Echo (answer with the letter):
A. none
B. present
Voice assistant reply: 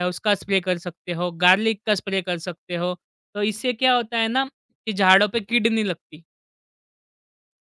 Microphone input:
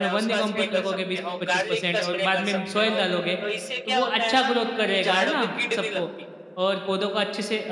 B